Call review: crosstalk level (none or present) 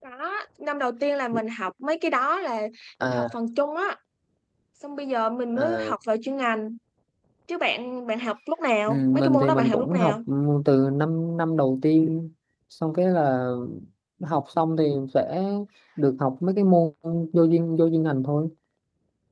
present